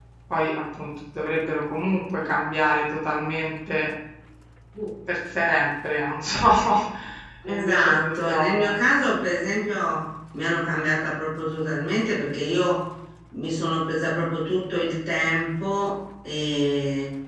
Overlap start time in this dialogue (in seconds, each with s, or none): 7.5 s